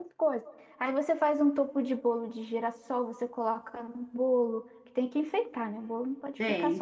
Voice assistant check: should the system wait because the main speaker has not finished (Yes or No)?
No